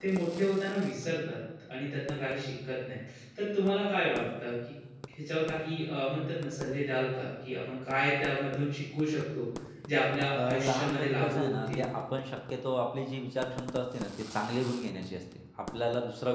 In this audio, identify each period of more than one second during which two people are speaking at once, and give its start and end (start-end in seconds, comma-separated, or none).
10.4-11.8